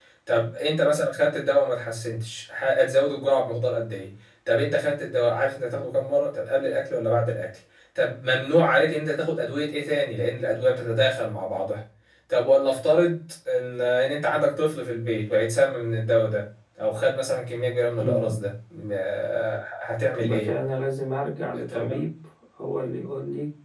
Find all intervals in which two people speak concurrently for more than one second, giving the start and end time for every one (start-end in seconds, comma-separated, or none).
none